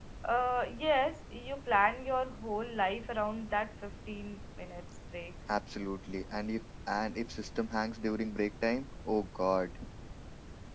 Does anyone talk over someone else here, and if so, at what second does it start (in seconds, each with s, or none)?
none